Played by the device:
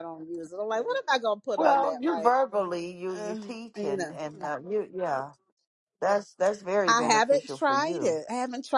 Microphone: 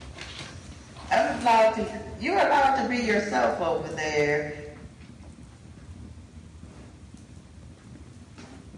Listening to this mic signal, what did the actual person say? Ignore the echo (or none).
I'm allowed to, you're allowed to be yourself over there.